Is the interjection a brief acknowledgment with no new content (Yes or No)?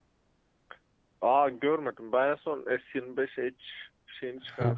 No